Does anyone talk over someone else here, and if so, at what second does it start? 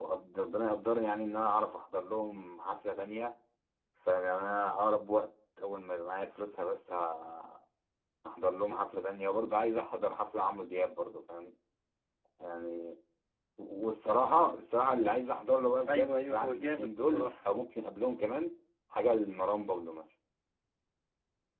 16 s

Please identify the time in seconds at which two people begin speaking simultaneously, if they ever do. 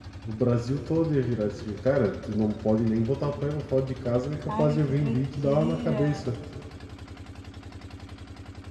4 s

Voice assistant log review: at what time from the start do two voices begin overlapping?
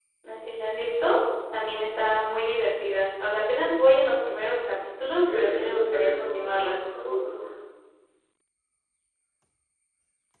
5 s

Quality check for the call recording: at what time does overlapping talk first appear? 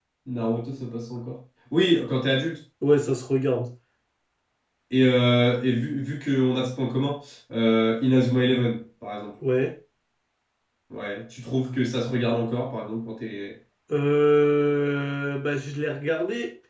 none

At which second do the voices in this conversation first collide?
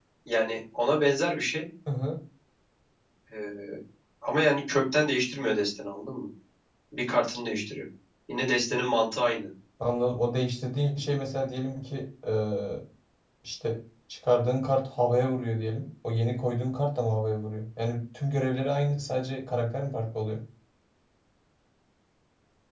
none

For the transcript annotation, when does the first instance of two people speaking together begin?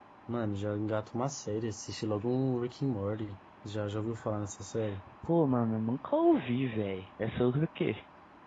none

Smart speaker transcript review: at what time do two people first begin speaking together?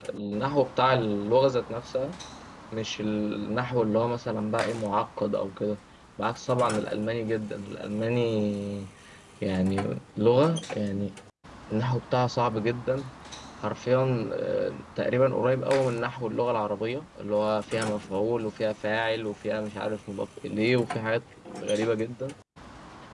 none

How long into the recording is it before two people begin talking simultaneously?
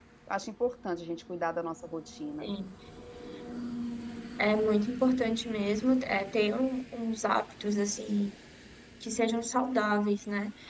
none

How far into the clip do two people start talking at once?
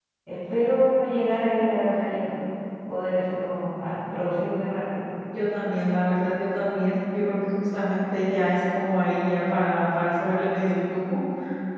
none

